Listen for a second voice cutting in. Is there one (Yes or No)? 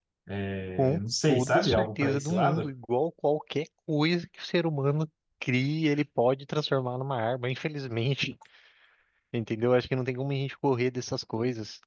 Yes